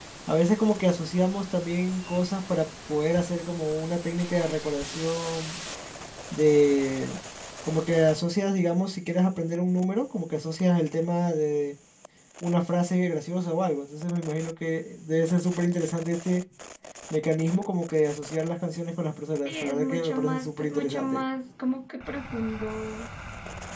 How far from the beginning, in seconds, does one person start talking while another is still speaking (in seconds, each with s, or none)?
19.4 s